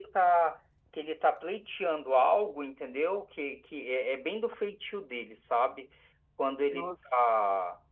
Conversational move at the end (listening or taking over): listening